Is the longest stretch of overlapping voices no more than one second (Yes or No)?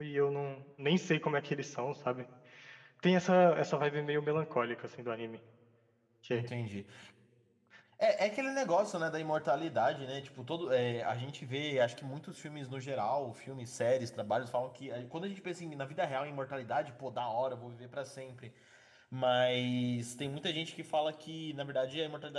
Yes